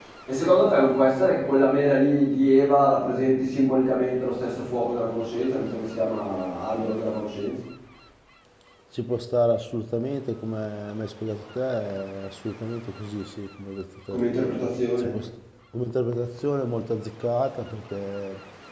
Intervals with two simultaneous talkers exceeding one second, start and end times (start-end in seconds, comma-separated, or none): none